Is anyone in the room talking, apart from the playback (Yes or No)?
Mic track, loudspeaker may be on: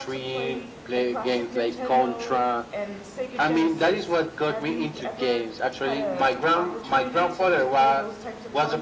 Yes